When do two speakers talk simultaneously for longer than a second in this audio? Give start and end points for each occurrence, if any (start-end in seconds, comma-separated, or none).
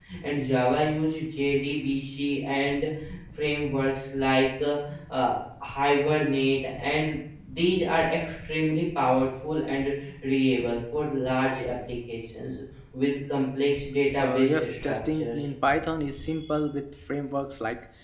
14.2-15.4